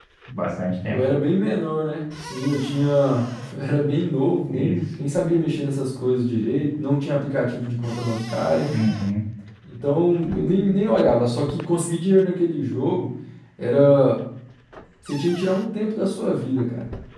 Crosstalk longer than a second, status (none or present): none